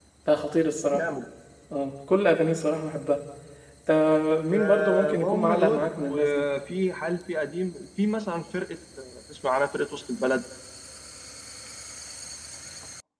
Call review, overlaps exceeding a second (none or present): present